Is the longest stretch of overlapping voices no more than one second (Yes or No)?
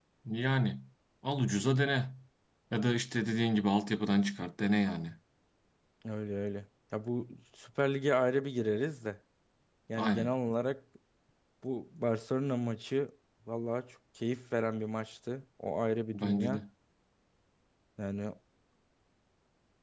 Yes